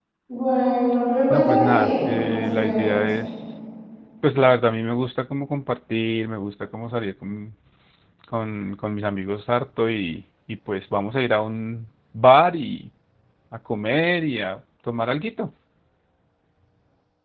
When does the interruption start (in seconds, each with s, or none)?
1.3 s